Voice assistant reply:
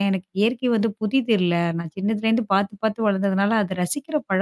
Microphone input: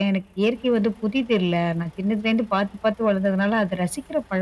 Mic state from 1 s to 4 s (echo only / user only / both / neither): echo only